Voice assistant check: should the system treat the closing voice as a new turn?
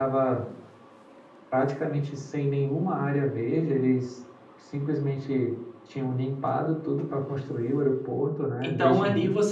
Yes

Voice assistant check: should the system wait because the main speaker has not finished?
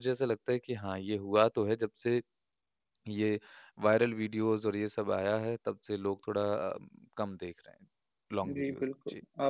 No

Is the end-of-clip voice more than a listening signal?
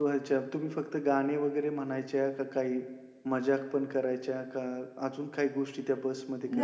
Yes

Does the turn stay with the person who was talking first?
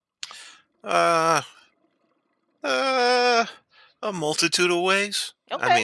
Yes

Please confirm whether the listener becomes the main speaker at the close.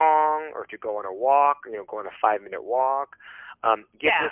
No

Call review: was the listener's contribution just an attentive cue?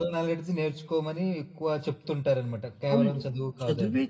No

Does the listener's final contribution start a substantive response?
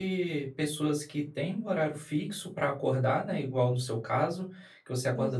No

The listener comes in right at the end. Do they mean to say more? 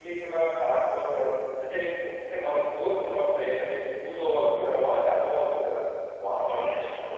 No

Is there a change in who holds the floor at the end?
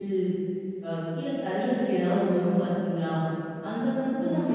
No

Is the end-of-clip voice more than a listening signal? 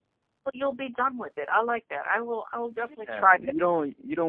Yes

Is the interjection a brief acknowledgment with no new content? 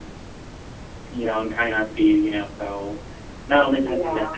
Yes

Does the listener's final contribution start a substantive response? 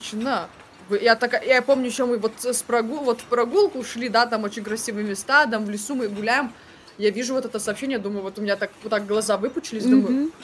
Yes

